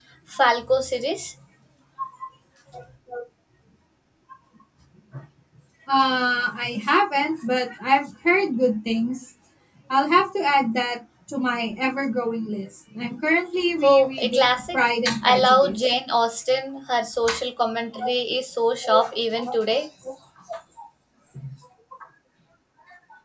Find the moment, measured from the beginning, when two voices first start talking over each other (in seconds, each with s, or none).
13.8 s